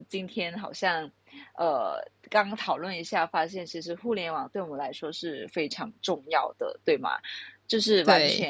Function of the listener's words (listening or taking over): listening